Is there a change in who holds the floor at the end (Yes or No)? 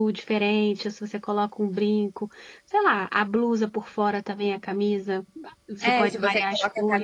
Yes